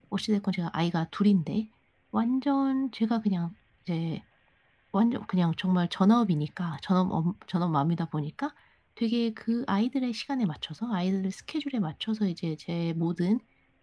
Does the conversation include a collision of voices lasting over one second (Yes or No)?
No